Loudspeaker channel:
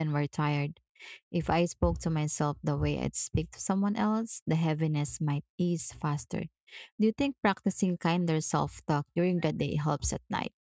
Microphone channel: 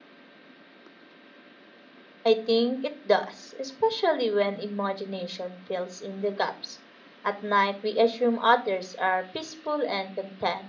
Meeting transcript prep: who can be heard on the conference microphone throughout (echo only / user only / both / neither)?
user only